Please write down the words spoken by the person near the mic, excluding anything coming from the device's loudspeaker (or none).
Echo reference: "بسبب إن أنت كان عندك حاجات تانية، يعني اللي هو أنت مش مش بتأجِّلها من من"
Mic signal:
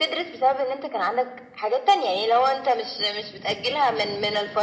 none